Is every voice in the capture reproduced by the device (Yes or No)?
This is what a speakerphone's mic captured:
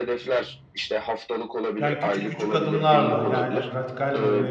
No